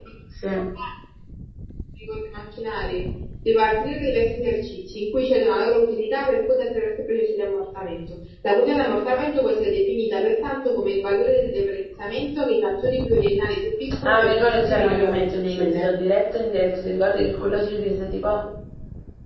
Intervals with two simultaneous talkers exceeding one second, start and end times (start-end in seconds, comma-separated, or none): 14.0-15.9